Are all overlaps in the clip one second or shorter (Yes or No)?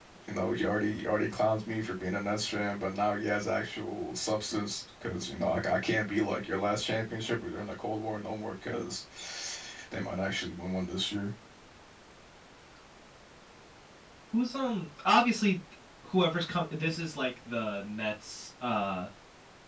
Yes